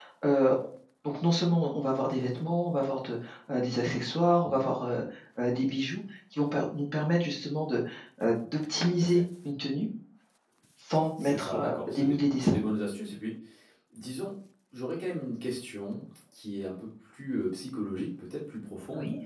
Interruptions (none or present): present